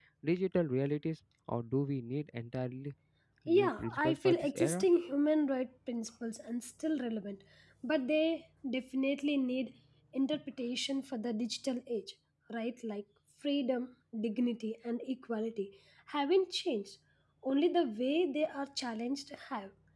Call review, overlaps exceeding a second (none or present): present